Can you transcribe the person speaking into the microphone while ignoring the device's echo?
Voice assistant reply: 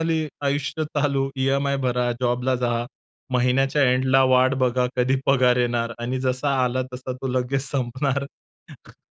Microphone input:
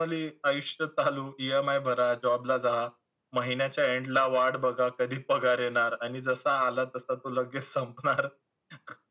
none

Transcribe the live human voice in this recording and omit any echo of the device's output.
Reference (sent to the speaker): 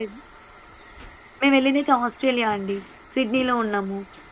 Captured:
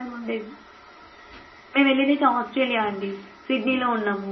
none

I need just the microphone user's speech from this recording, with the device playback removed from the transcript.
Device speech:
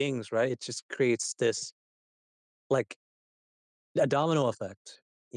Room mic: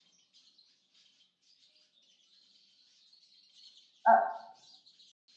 Uh.

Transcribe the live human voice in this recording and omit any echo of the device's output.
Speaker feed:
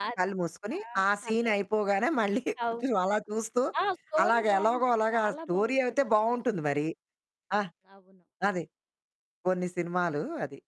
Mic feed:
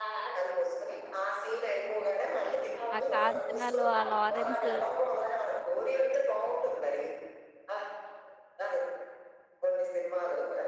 ఆ 'కాంచనలో' ఆ 'లారెన్స్'

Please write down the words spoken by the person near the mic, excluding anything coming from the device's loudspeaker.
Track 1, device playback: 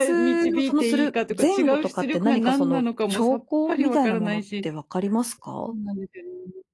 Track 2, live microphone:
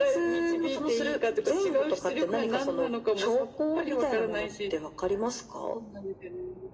none

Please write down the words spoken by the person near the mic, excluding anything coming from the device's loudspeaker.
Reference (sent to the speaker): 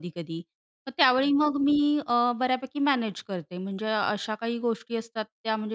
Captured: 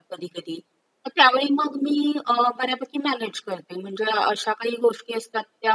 none

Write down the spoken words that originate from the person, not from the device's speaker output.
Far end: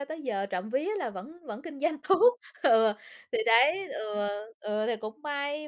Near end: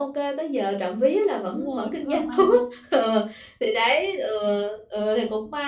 Đúng rồi, cũng là may nha.

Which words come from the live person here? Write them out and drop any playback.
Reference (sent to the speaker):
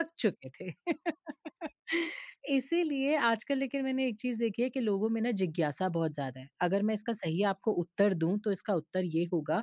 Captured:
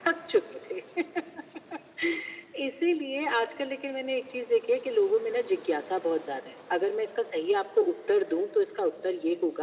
none

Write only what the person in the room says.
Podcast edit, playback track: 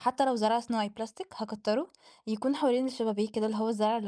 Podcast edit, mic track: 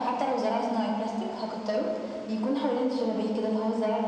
none

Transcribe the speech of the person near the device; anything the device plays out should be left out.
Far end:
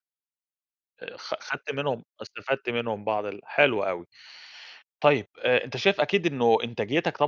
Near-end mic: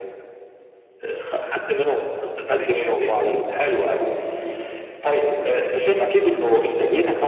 آه، فرق كبير بين ال

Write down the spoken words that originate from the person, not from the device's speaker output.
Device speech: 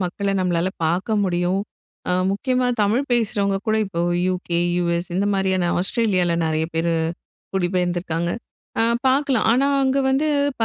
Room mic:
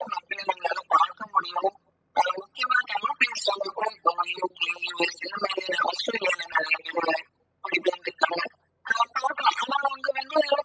none

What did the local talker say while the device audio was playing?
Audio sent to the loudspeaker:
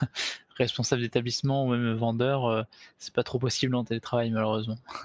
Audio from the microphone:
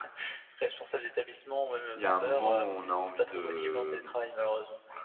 il y a un moment où on a envie de mmh

